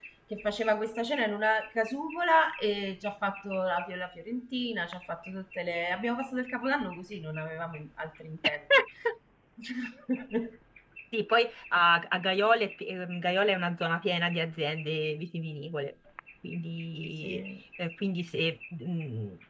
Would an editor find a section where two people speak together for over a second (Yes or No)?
No